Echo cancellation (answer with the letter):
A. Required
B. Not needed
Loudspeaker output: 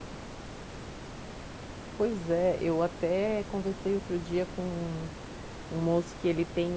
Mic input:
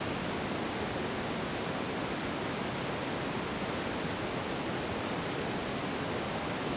B